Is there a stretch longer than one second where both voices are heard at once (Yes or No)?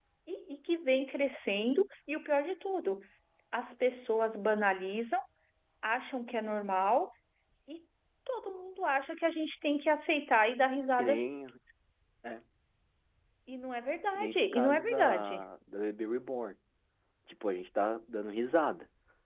Yes